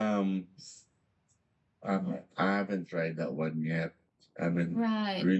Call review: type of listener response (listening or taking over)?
listening